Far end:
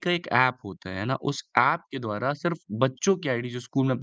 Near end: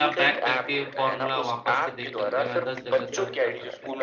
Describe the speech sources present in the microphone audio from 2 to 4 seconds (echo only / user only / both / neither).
both